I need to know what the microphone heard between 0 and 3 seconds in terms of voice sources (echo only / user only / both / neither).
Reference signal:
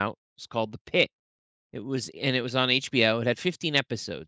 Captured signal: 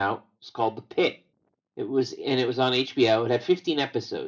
echo only